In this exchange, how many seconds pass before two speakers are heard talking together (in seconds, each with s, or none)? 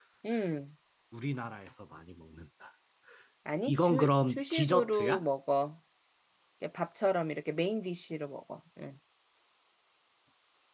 3.7 s